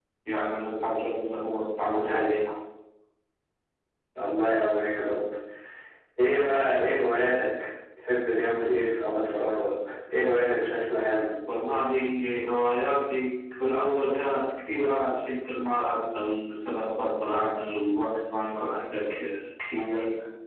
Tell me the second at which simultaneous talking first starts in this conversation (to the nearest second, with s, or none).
none